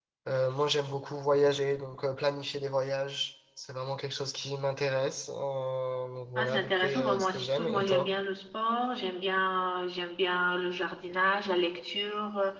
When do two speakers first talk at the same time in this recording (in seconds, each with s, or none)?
6.3 s